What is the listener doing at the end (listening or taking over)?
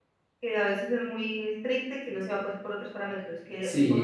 taking over